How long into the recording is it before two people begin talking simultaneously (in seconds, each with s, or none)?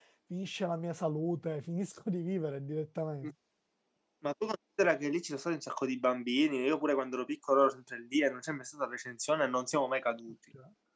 none